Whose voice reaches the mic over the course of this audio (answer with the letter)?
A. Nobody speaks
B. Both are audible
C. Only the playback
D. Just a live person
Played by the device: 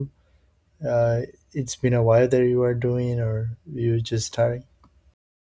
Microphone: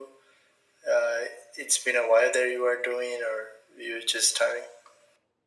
C